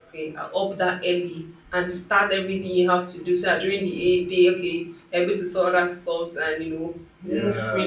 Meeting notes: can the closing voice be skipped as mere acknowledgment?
No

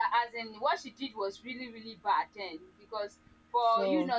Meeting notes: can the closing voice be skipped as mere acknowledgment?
Yes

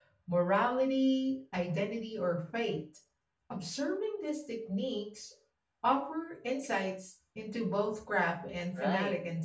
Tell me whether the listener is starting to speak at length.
Yes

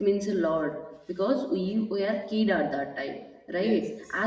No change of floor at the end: Yes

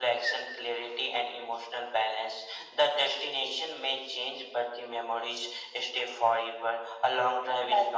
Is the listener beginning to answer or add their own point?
No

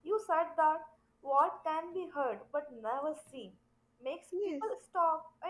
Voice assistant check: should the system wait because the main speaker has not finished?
Yes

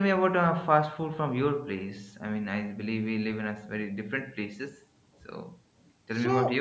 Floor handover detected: Yes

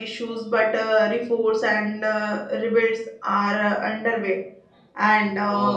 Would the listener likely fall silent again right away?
No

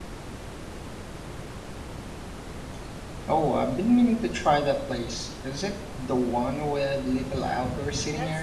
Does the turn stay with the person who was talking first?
No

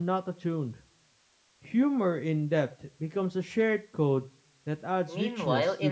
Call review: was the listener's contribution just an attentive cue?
No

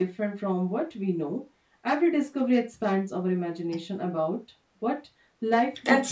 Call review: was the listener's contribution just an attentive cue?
No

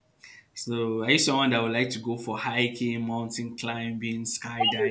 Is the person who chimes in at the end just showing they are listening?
No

